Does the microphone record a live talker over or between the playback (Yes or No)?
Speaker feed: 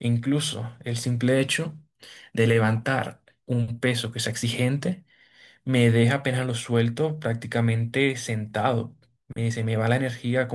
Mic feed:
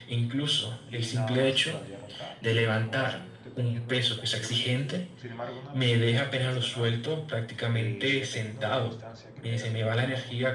Yes